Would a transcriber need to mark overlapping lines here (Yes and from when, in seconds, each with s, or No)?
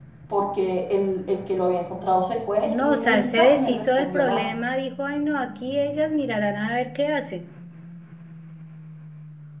Yes, from 2.7 s